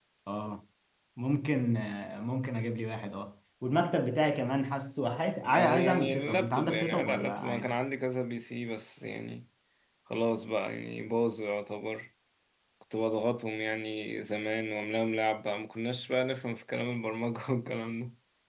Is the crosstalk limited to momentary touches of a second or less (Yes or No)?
No